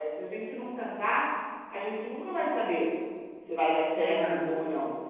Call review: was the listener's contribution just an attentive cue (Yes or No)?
Yes